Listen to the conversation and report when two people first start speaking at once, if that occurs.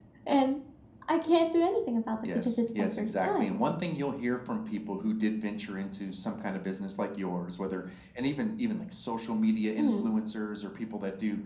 2.4 s

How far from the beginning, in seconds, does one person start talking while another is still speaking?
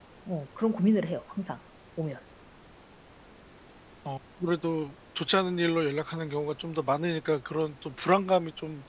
none

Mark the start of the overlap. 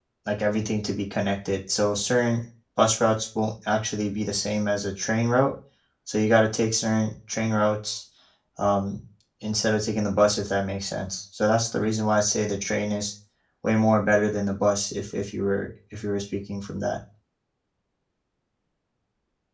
none

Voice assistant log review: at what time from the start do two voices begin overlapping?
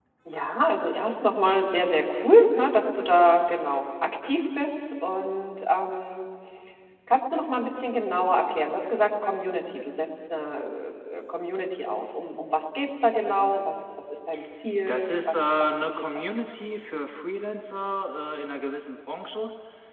14.9 s

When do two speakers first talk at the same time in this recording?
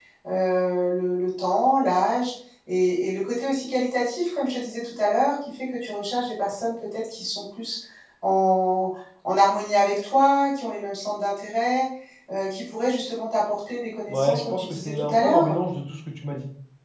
14.1 s

